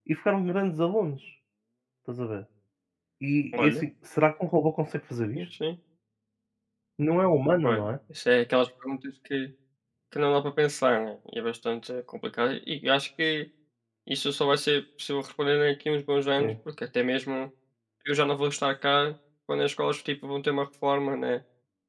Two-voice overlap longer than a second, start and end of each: none

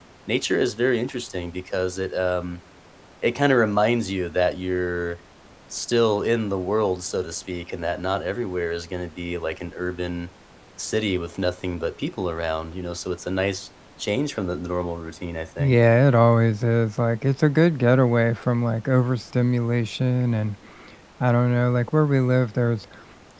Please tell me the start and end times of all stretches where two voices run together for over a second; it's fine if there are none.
none

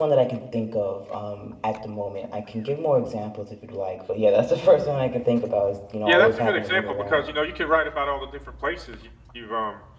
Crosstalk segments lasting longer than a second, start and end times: 6.1-7.3

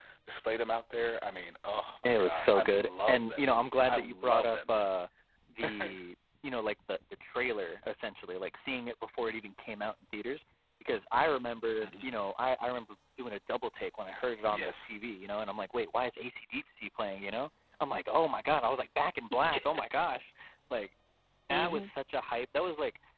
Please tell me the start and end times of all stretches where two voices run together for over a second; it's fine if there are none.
2.0-4.8

